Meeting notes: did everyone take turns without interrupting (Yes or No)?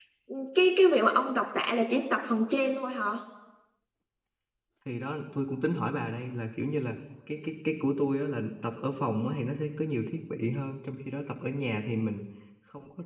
Yes